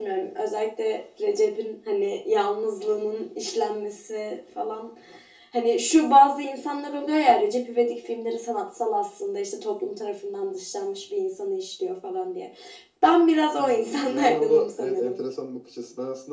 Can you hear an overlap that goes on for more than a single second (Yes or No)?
Yes